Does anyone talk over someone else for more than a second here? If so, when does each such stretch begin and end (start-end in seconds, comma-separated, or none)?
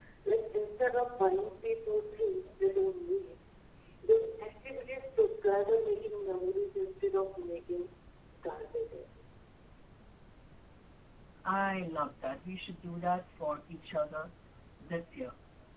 none